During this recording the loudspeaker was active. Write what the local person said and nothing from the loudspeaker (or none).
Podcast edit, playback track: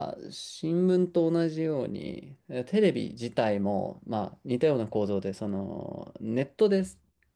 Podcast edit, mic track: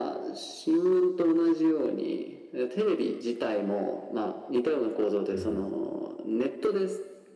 うん